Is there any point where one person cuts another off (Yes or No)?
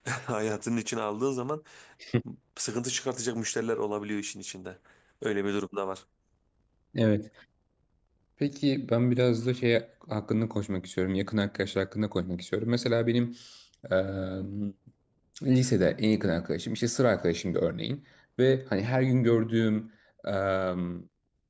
No